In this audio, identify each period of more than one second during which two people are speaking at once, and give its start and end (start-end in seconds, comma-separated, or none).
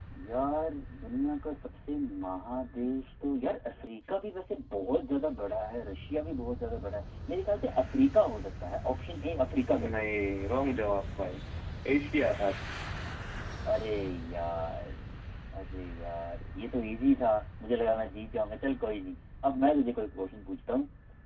none